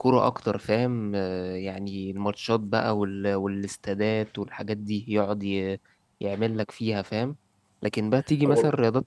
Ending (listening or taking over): listening